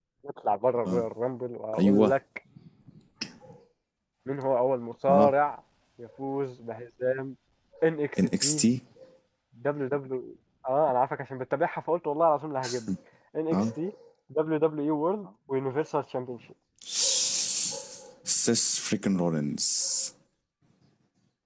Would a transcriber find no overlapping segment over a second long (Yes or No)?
Yes